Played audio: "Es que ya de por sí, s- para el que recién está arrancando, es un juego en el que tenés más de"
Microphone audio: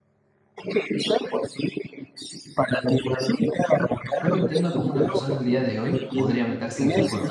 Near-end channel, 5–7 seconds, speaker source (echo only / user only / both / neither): both